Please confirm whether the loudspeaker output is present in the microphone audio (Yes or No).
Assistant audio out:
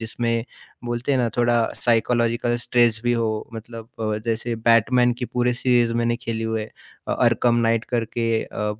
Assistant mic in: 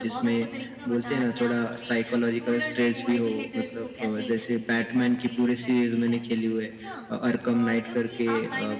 Yes